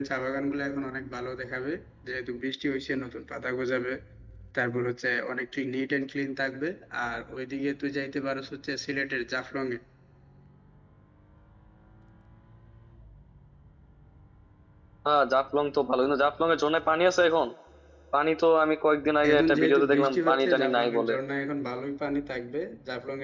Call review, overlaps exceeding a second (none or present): present